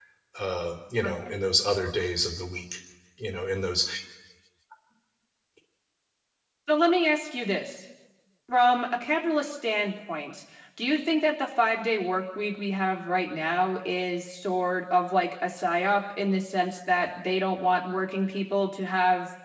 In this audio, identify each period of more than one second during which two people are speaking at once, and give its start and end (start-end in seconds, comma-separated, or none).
none